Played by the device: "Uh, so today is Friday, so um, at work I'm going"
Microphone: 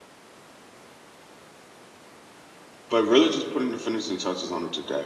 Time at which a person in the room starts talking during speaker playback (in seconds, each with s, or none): 2.9 s